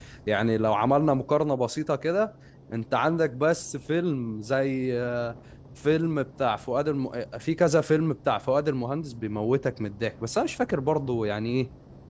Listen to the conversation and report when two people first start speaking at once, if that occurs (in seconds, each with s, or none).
none